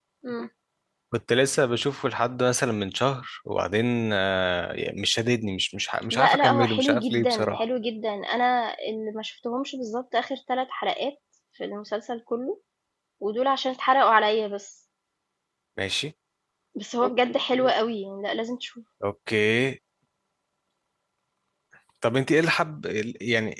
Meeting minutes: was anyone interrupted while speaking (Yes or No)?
Yes